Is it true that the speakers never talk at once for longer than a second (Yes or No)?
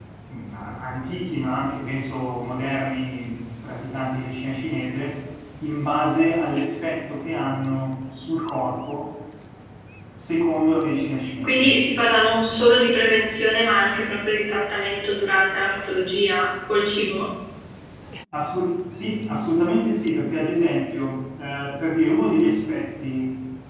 Yes